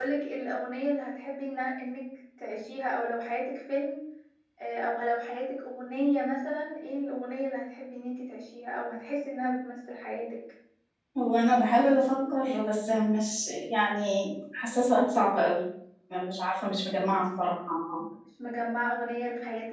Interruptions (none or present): none